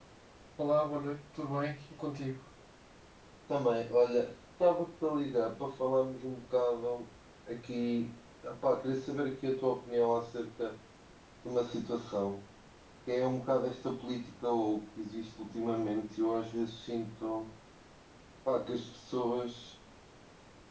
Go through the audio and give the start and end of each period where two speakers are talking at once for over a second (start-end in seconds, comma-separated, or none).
none